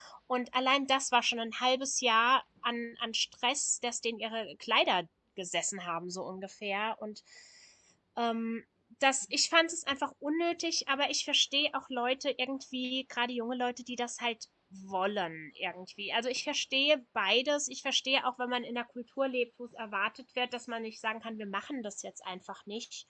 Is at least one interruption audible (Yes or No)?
No